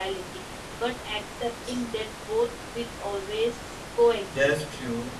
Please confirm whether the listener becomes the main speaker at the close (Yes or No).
Yes